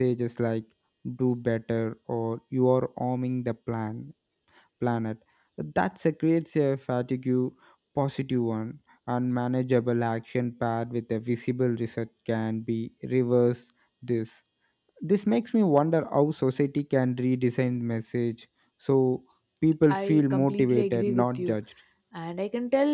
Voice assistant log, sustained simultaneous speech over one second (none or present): present